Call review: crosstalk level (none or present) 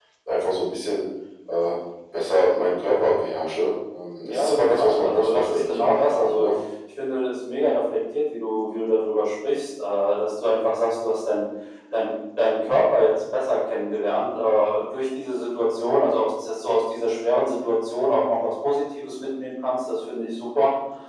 present